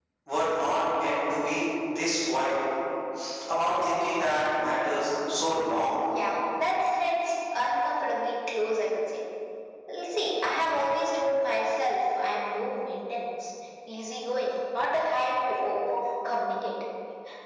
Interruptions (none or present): none